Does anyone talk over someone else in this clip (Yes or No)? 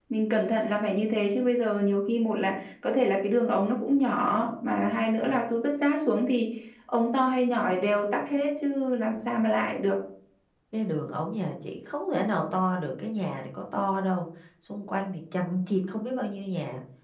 No